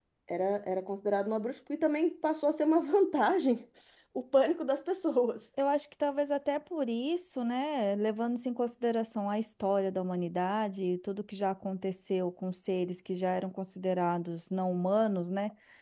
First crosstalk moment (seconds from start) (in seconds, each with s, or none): none